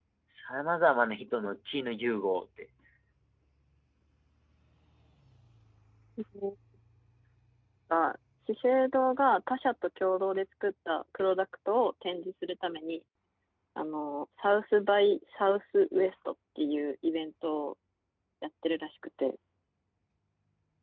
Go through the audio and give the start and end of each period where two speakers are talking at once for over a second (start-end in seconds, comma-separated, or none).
none